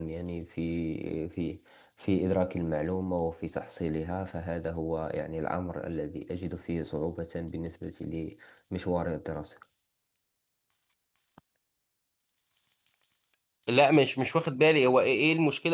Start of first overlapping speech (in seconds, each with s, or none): none